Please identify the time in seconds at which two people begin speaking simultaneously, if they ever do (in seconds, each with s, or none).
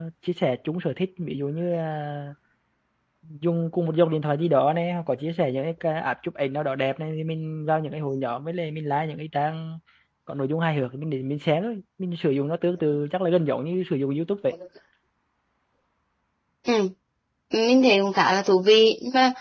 none